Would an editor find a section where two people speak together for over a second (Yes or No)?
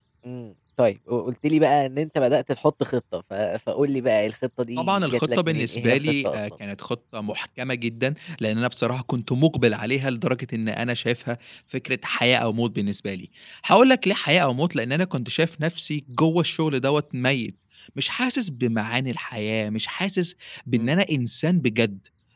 Yes